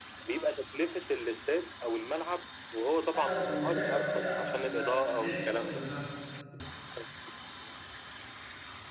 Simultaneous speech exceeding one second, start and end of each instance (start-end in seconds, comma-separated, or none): 3.1-5.8